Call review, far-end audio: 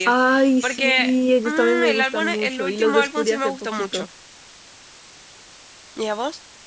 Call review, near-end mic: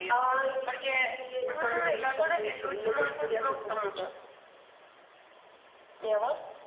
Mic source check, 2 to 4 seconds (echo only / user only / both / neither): echo only